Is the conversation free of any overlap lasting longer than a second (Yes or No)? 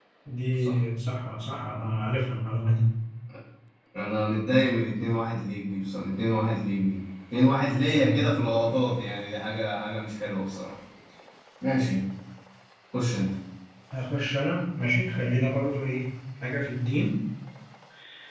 Yes